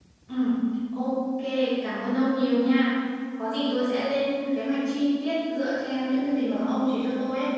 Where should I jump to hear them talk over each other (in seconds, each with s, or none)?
none